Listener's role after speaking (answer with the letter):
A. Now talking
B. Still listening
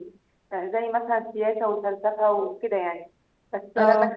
B